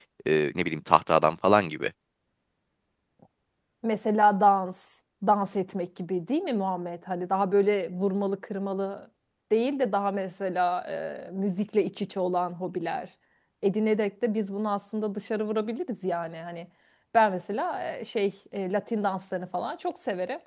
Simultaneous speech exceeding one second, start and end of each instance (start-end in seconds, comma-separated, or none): none